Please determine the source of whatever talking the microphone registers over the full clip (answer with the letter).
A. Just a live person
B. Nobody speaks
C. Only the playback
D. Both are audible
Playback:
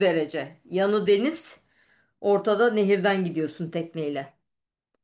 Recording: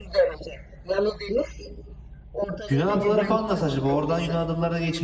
D